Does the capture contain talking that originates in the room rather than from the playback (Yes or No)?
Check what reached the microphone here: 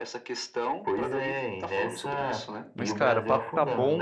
Yes